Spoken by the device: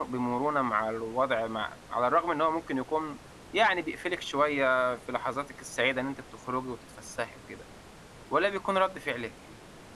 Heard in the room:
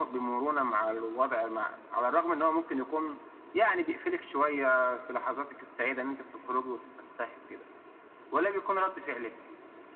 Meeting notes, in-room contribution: none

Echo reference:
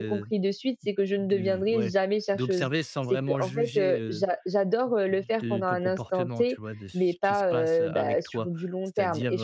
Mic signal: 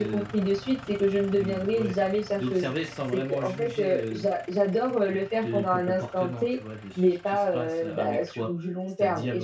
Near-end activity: none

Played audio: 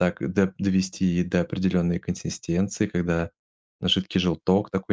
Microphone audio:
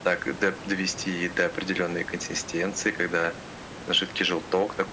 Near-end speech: none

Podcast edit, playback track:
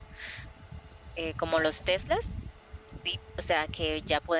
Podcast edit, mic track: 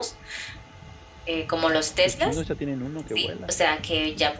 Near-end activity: present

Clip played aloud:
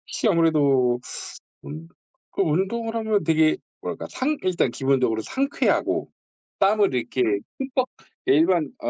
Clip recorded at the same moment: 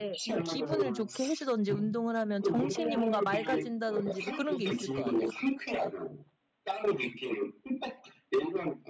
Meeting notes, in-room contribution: present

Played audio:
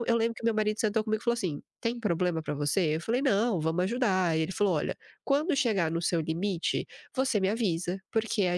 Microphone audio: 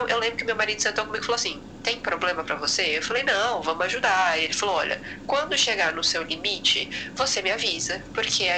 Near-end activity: none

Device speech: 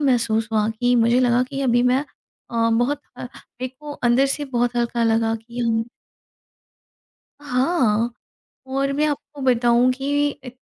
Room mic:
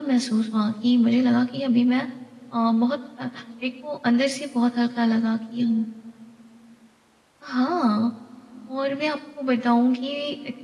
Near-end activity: none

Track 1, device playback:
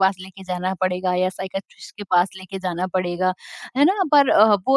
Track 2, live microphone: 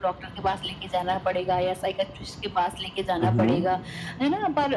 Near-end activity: present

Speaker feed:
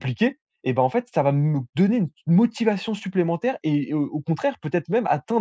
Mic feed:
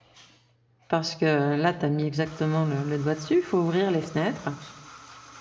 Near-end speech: present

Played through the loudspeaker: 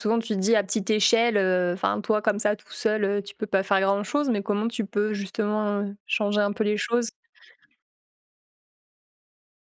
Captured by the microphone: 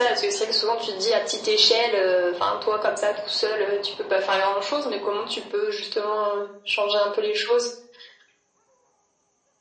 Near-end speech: none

